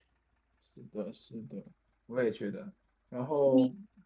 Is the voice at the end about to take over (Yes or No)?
No